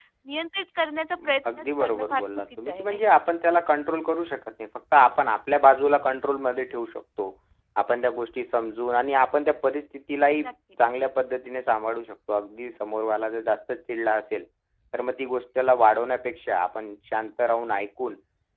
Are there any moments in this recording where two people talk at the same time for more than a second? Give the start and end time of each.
1.2-3.0

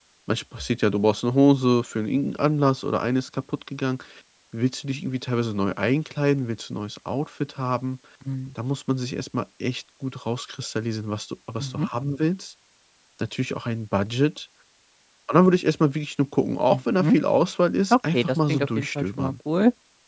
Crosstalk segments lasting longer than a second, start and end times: 17.9-19.3

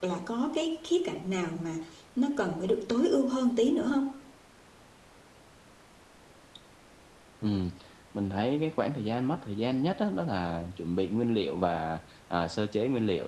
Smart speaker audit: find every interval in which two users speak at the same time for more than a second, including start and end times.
none

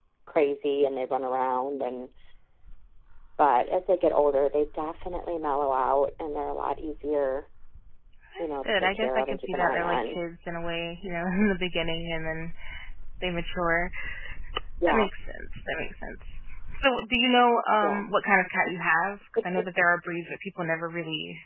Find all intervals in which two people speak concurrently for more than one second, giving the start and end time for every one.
8.4-10.2

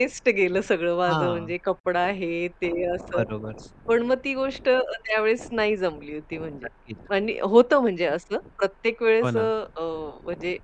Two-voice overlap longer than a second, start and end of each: none

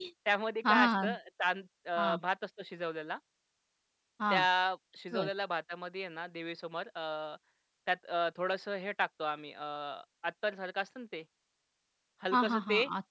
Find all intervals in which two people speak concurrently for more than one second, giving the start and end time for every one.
none

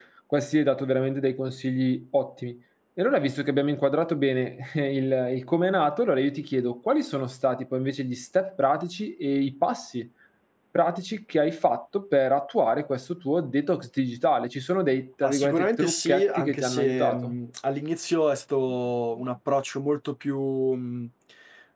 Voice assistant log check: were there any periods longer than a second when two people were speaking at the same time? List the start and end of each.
15.2-17.4

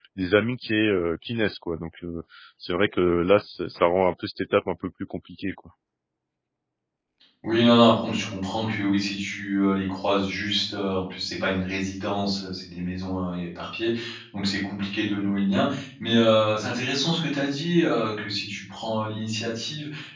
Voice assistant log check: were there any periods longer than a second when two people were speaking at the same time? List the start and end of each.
none

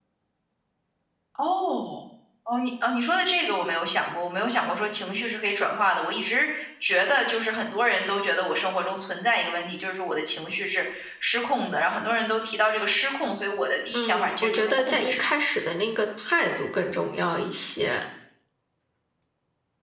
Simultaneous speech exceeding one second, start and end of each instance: 13.9-15.2

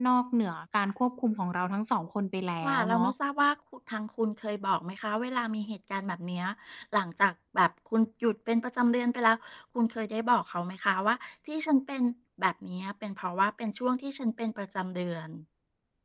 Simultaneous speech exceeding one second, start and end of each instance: none

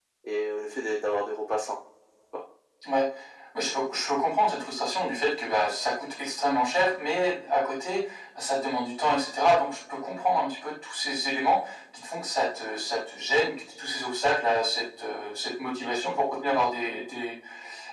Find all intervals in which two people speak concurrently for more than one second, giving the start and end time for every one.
none

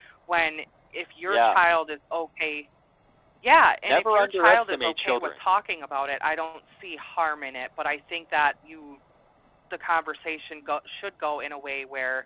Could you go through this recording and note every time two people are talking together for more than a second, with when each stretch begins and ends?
3.9-5.3

